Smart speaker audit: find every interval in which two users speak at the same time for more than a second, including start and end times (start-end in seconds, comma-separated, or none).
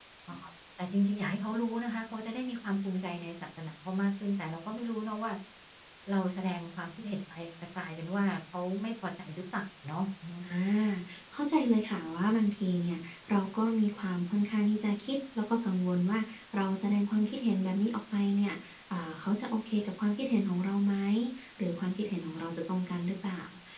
none